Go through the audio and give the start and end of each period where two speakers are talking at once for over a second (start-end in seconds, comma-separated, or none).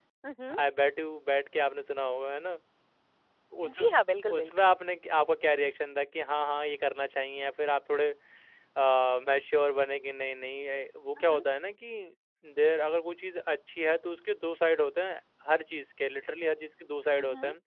none